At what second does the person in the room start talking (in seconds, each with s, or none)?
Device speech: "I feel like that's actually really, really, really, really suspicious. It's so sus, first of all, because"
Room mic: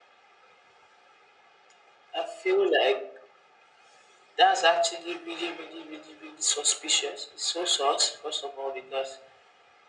none